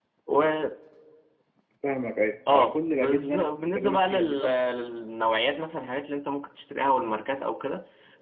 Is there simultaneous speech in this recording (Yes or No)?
Yes